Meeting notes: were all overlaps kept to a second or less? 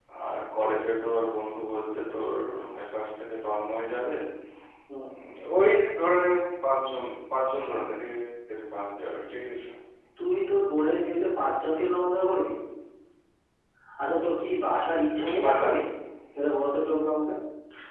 Yes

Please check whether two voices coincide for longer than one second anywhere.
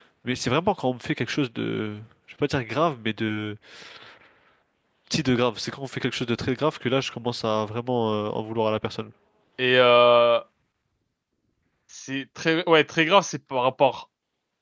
No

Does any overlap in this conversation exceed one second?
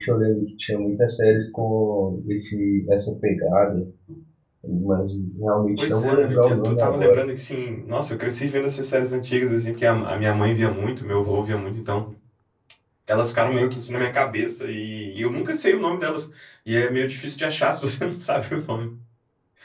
Yes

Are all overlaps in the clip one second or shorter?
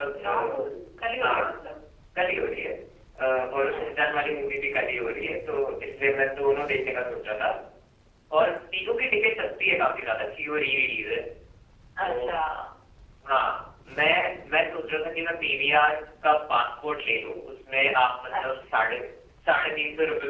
Yes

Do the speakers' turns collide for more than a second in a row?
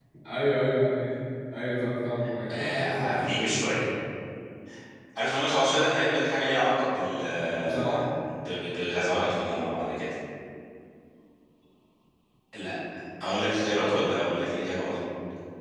Yes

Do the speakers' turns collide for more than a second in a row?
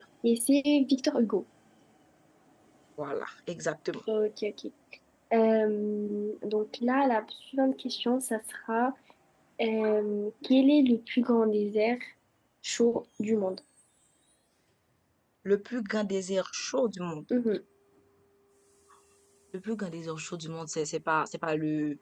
No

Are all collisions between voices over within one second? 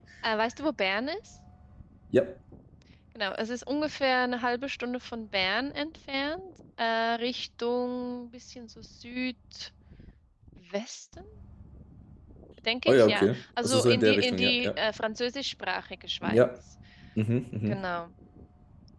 No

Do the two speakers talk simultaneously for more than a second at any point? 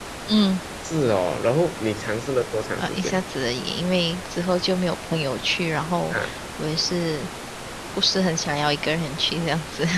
No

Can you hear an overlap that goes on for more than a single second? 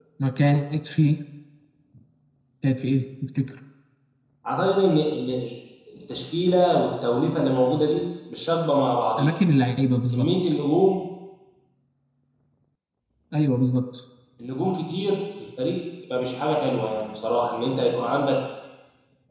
No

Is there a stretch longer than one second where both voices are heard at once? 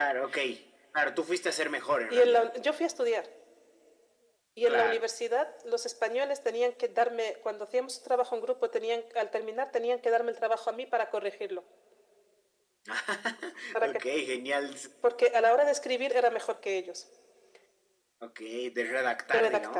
No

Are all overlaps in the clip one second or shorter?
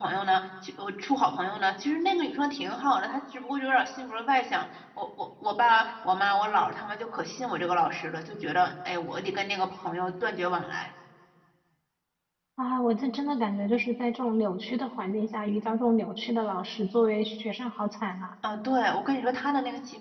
Yes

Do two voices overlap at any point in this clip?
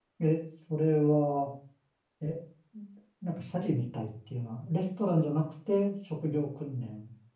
No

